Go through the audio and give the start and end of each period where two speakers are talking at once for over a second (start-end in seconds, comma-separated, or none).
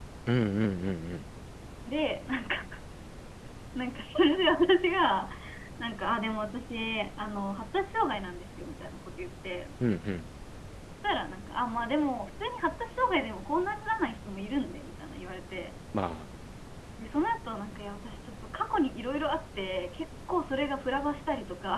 none